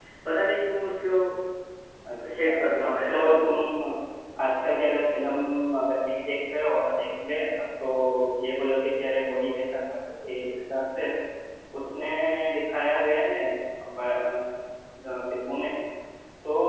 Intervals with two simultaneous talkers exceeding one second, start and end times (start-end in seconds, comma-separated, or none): 2.4-3.6